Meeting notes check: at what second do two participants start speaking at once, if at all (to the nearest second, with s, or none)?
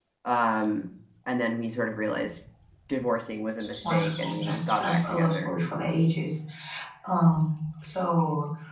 4 s